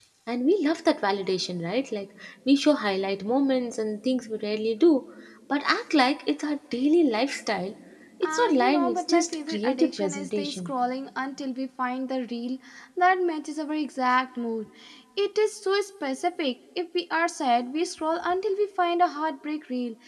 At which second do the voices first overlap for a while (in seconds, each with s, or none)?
8.2 s